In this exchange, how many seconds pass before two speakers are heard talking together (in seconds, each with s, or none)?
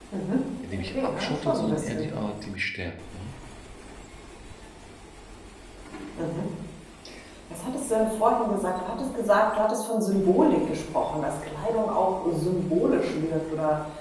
0.7 s